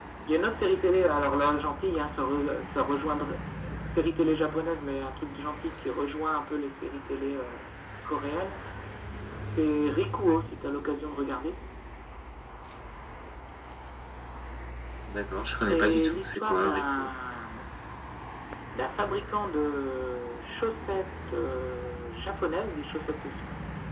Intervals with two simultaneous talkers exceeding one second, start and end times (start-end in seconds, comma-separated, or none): 15.7-17.1